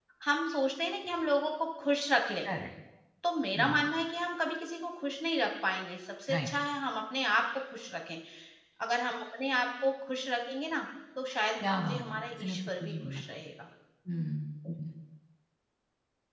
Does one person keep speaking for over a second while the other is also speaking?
Yes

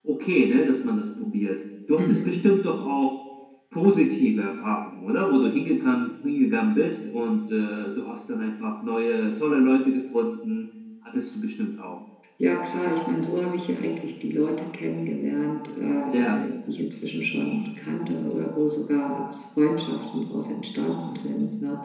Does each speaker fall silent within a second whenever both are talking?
Yes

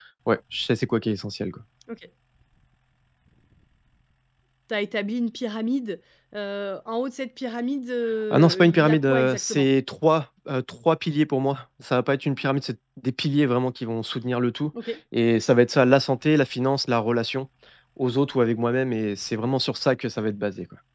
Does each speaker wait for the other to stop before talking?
No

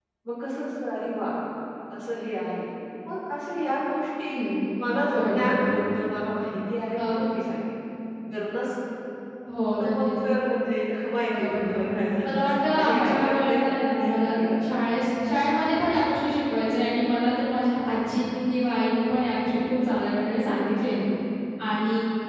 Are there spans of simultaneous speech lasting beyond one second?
Yes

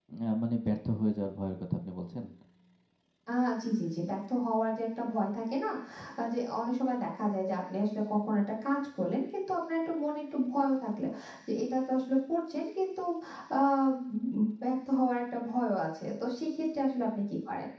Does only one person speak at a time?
Yes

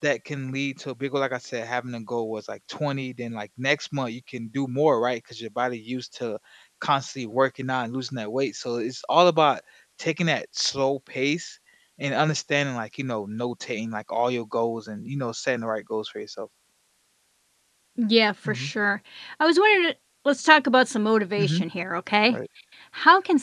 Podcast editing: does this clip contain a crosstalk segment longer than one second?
No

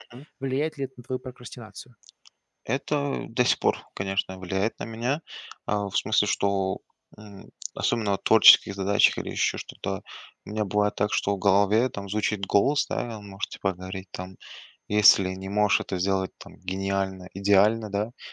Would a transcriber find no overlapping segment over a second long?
Yes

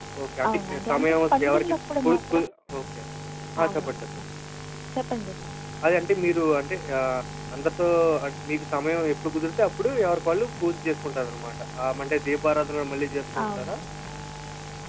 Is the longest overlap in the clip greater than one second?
Yes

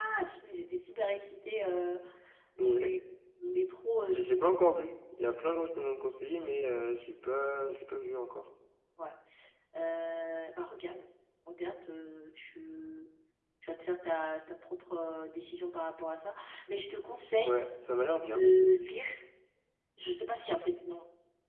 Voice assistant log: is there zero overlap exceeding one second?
Yes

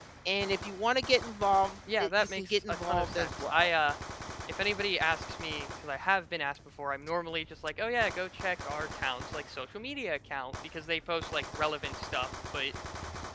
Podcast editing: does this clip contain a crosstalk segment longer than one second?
Yes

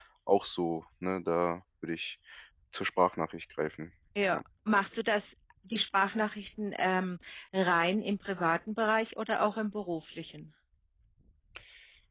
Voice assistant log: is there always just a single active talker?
Yes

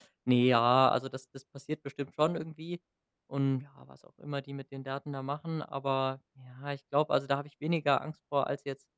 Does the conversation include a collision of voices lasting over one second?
No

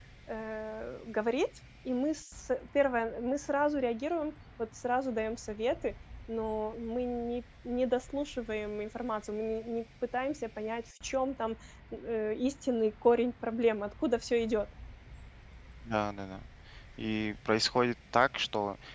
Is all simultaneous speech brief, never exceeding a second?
Yes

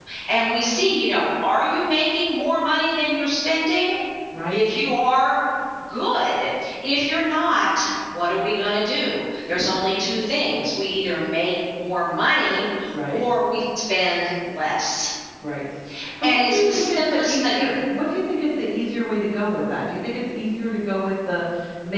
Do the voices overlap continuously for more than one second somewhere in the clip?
Yes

